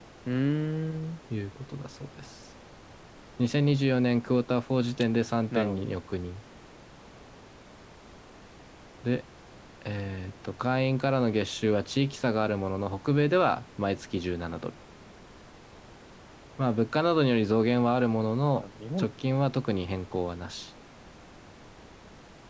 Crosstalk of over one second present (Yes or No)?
No